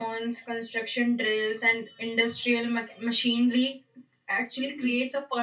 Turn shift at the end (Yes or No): No